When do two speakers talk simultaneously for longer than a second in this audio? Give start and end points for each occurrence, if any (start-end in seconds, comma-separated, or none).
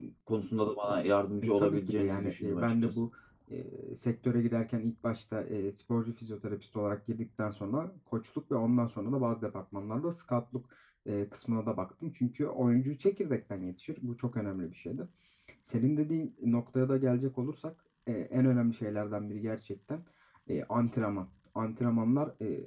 1.4-2.9